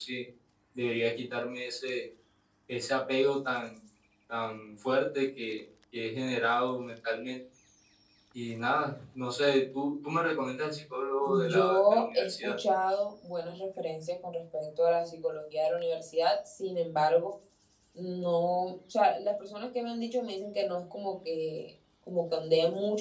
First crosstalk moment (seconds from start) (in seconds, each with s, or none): 11.2 s